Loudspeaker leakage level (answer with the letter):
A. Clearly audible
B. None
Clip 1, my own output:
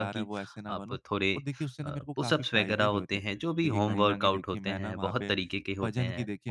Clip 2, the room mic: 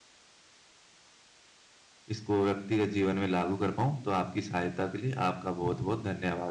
B